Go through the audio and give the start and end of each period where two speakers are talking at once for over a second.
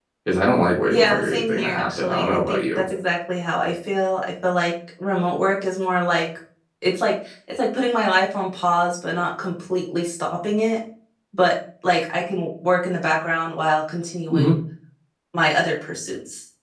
0.9-2.8

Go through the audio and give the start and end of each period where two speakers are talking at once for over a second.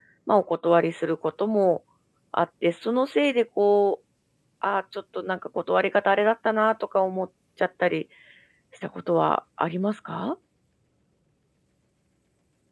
none

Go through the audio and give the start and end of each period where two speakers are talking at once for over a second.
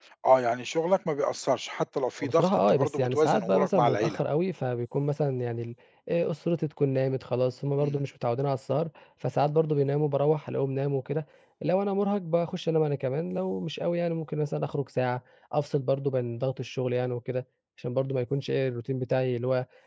2.2-4.2

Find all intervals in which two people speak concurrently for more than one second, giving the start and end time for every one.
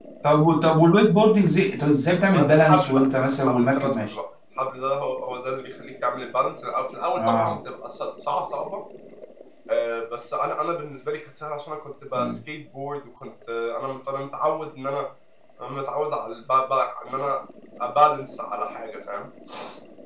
2.3-4.1

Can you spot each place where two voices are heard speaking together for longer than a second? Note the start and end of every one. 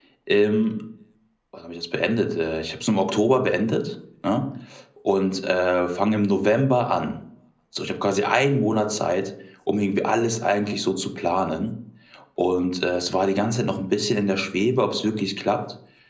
none

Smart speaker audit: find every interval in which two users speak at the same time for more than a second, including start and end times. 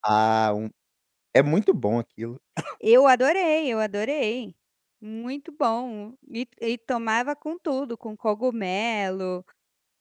none

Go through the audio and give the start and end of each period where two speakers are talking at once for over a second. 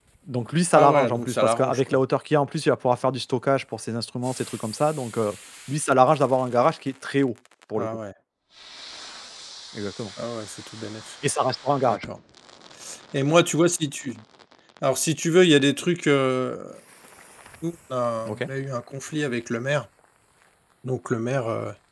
0.7-2.0

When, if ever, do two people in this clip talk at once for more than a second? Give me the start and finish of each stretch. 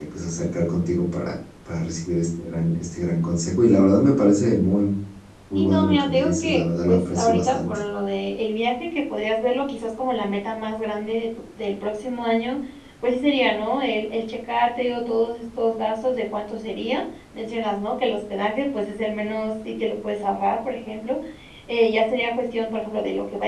5.5-7.7

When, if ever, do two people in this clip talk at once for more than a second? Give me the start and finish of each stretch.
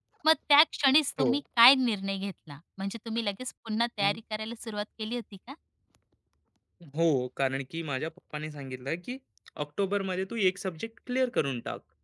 none

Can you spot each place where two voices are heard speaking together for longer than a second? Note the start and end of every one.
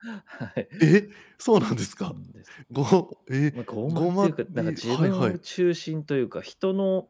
3.9-5.4

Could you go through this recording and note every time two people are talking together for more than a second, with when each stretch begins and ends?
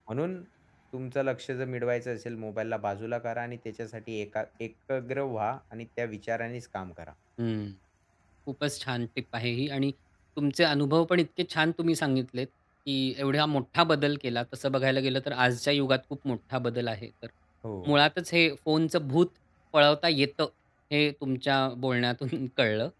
none

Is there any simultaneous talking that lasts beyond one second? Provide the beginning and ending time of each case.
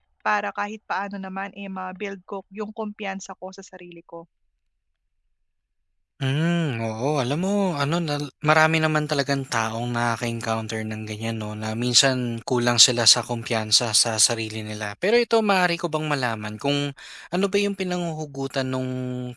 none

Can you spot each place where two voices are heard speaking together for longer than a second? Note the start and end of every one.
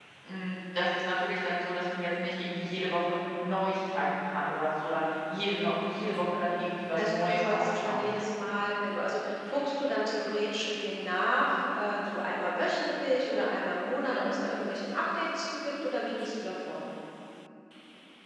7.0-8.2

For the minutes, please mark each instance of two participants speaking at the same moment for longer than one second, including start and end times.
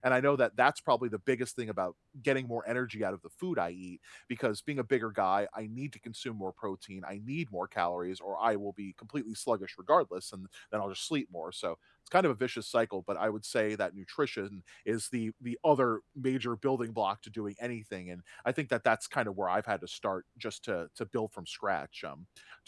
none

